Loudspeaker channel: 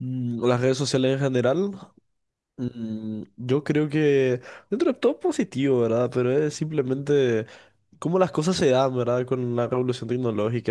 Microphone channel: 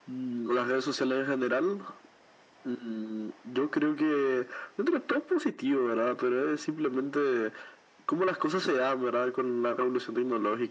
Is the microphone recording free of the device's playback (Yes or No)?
No